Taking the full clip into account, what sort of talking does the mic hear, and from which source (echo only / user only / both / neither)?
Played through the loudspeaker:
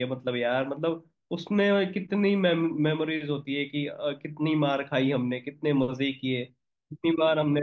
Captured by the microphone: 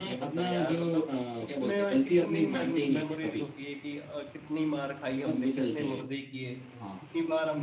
both